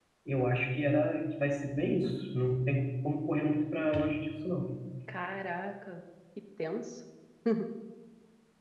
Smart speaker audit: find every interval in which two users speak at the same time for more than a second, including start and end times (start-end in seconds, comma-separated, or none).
none